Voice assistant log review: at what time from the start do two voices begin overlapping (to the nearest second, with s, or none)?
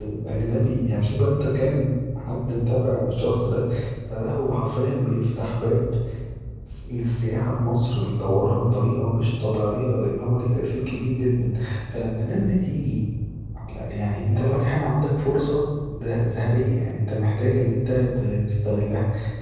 none